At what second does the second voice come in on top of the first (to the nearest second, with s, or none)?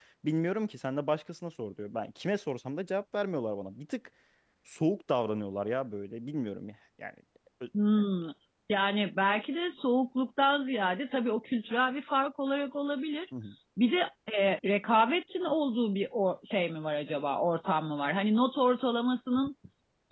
none